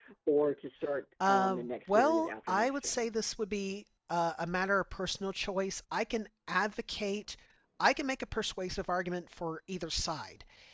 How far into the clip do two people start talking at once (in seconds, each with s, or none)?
1.3 s